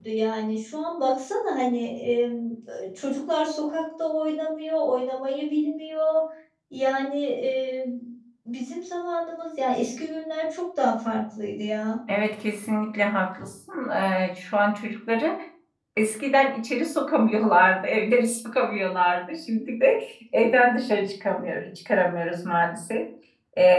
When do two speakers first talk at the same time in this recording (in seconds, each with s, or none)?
none